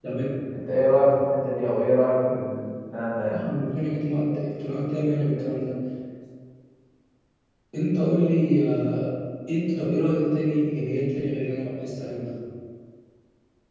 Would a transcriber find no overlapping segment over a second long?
Yes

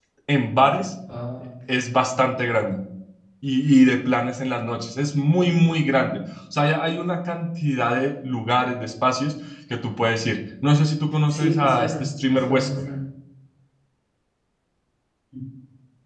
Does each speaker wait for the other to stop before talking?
No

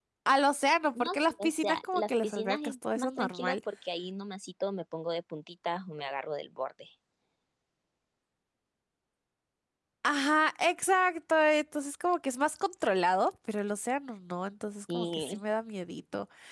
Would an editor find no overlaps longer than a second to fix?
No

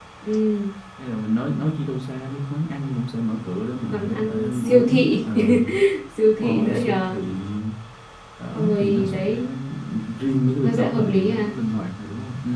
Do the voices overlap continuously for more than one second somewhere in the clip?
Yes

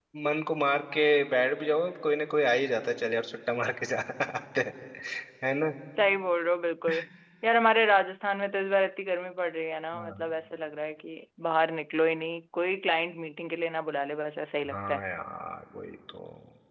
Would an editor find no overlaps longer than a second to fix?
Yes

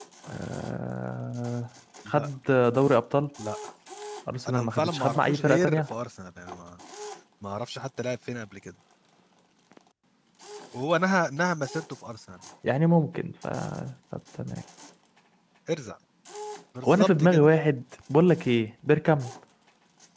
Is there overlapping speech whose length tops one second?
Yes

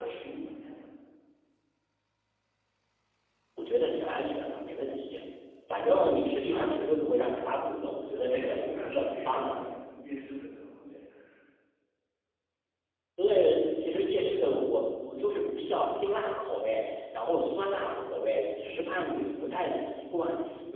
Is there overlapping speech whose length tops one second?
Yes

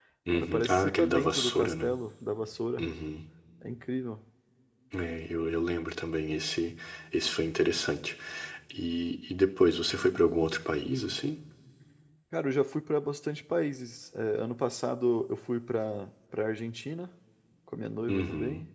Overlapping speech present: Yes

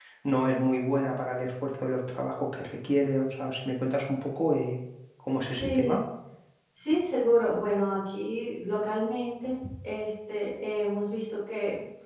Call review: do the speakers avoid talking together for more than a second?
Yes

